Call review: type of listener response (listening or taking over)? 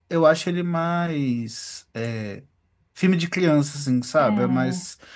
listening